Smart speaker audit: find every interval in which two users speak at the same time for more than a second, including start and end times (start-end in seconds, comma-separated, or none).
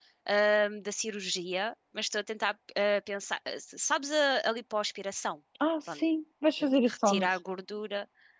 none